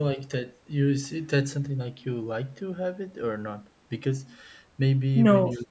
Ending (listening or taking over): listening